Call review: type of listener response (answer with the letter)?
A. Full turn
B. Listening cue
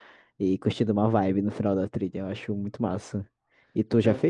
B